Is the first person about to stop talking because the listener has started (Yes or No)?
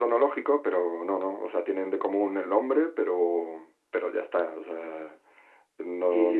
Yes